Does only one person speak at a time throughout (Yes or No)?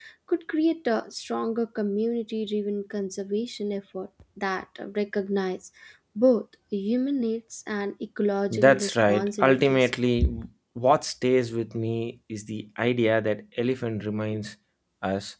No